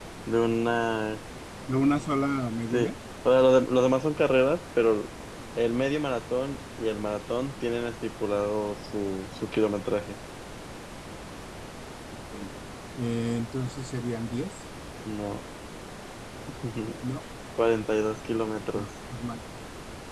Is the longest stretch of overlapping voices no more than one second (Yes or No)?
Yes